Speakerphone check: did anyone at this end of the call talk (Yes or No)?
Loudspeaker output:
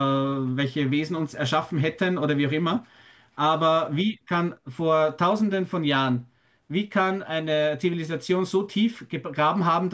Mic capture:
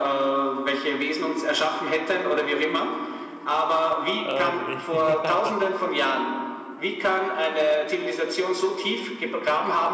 Yes